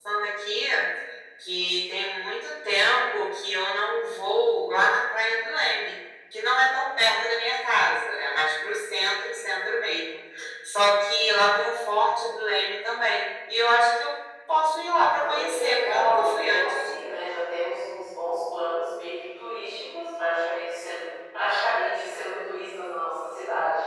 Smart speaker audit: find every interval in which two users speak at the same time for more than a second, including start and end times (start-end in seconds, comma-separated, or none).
15.1-16.9